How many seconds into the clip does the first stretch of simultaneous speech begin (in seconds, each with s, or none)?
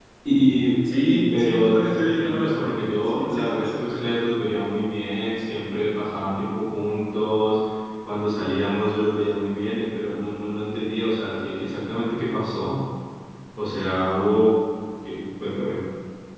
0.9 s